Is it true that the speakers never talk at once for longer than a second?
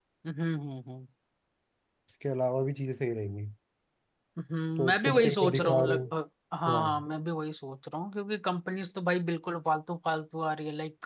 No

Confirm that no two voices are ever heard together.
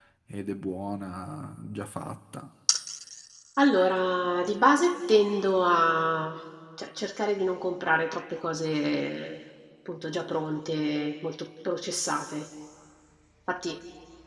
Yes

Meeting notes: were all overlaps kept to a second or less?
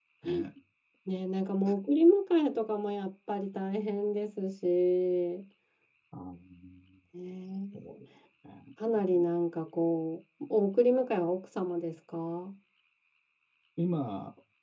Yes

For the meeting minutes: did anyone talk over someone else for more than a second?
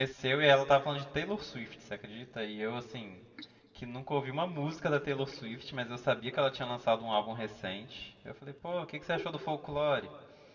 No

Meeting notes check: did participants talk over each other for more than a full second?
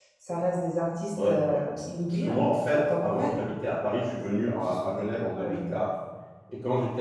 Yes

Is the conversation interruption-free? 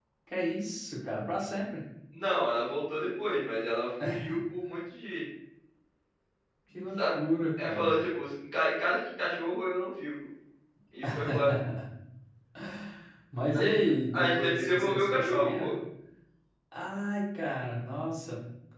No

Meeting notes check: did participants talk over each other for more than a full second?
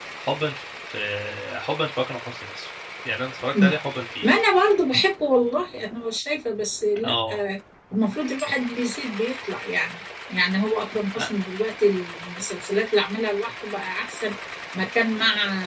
No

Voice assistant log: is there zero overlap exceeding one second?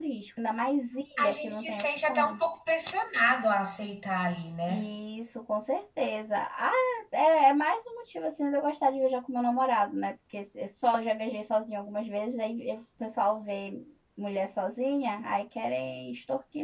No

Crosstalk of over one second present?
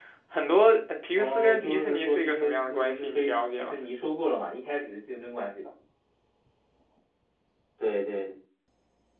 Yes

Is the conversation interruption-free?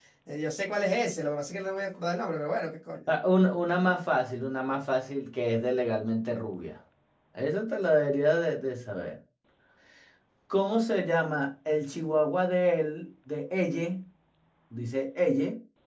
Yes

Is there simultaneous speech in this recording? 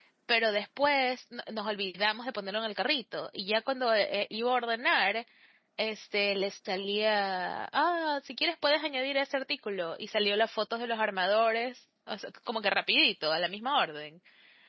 No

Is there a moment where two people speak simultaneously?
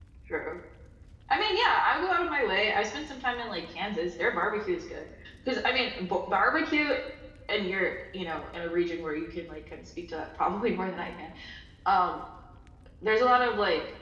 No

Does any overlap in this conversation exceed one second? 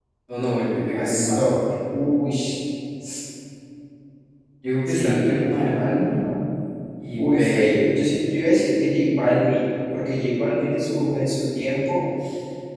Yes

